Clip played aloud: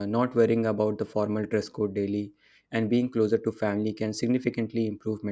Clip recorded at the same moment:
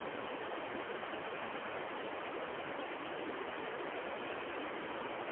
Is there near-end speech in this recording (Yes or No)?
No